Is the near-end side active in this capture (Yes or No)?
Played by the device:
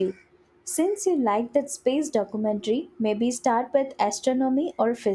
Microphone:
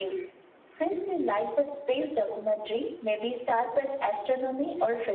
No